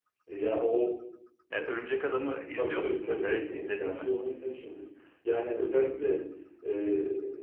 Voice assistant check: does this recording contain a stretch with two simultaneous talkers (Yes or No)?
Yes